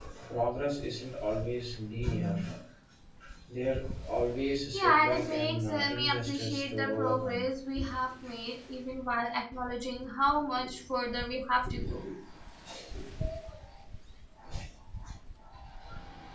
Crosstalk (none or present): present